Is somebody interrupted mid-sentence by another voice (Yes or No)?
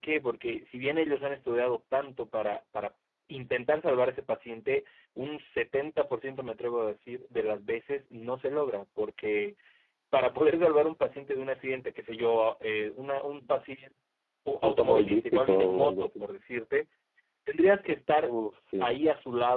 Yes